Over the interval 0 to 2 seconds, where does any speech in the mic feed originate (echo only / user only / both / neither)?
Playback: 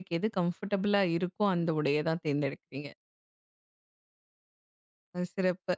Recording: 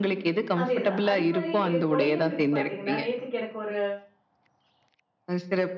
both